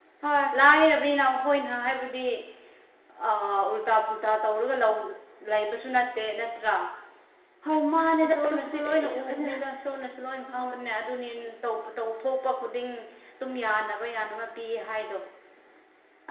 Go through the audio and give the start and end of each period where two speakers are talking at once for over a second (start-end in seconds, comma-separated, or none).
8.3-9.5